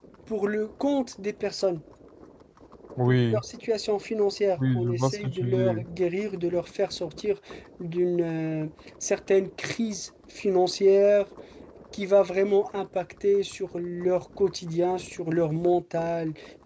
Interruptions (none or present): present